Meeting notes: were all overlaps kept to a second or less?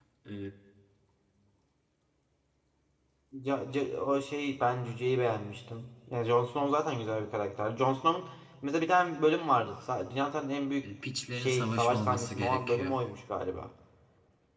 No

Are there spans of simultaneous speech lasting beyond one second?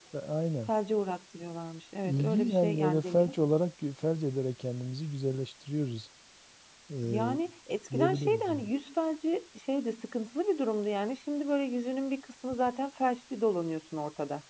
Yes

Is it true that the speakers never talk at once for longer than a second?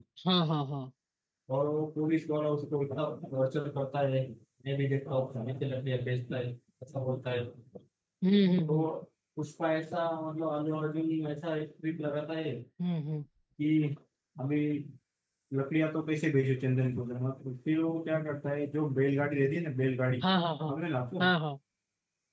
Yes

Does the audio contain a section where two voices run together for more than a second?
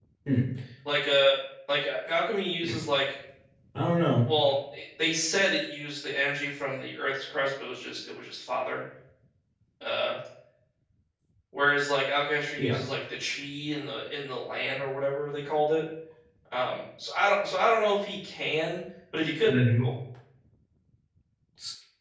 No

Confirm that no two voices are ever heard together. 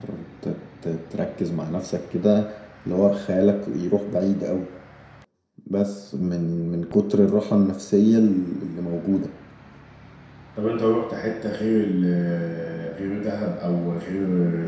Yes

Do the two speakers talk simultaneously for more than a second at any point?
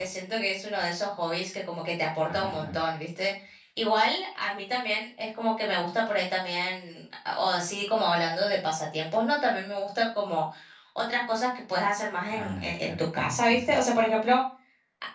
Yes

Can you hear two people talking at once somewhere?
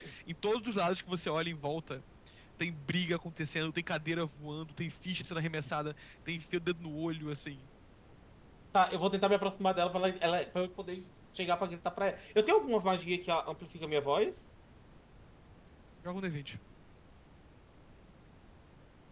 No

